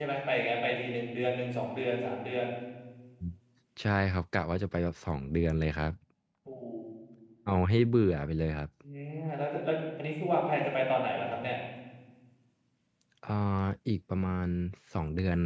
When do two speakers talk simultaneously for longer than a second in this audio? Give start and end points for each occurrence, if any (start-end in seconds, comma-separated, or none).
none